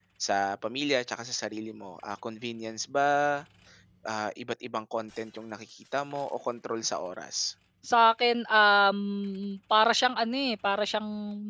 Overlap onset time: none

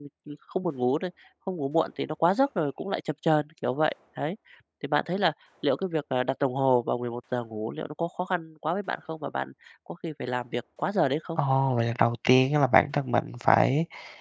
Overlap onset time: none

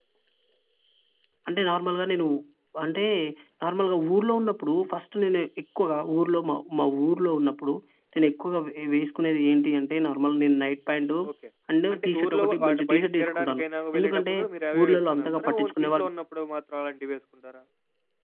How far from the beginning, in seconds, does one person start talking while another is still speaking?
12 s

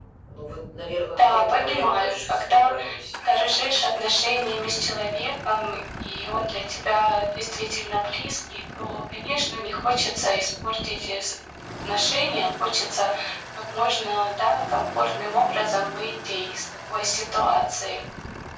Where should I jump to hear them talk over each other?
1 s

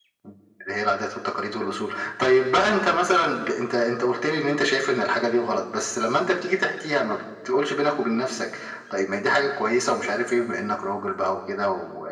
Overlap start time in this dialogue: none

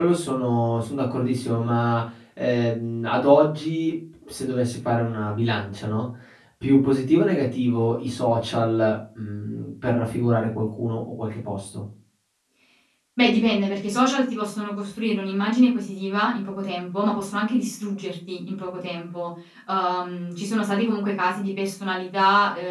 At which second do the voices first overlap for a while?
none

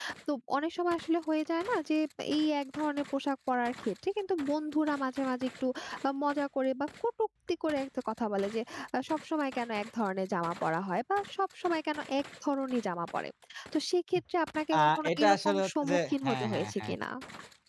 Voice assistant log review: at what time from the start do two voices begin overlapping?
15 s

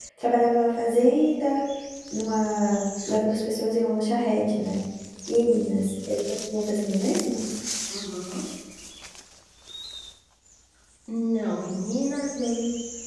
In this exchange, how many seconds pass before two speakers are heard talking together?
none

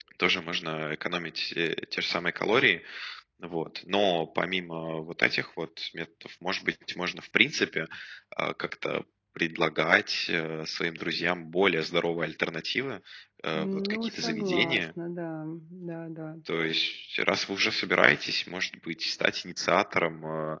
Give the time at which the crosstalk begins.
14 s

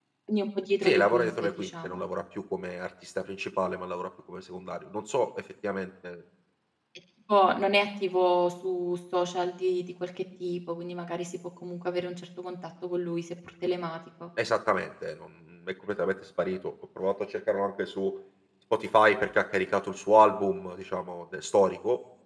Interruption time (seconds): 1 s

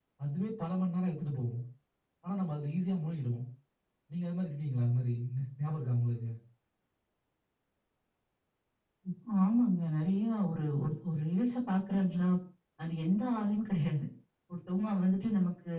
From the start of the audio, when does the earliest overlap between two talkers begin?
none

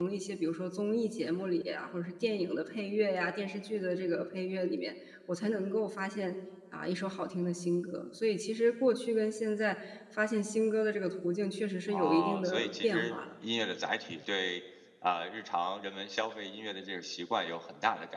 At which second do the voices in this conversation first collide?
12 s

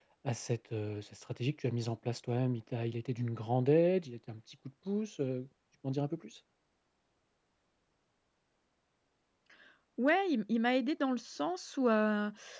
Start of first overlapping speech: none

